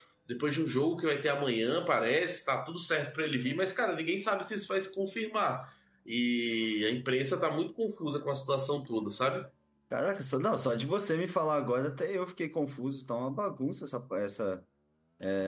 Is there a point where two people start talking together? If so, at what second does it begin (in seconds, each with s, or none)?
none